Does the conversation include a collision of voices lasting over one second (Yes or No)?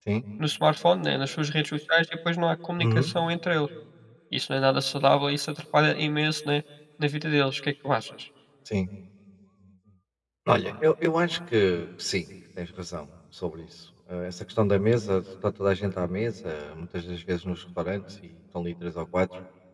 No